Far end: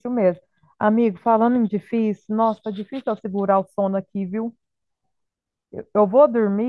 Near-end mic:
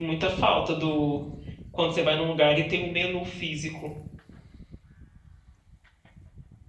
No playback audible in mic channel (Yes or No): Yes